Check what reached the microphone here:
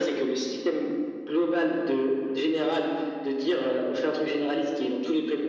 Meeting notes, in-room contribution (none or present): none